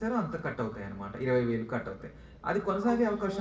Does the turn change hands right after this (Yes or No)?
No